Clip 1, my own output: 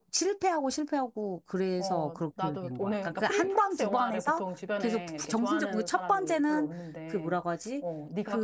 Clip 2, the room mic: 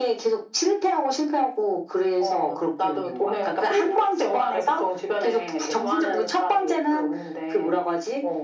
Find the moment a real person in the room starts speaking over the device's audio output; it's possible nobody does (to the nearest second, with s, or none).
none